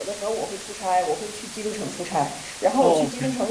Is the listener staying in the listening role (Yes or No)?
Yes